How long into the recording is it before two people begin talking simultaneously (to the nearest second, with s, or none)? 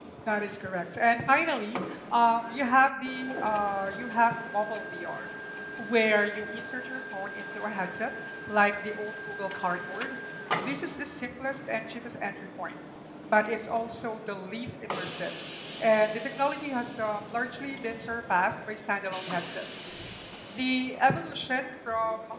none